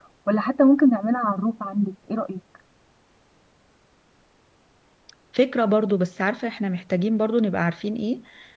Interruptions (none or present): none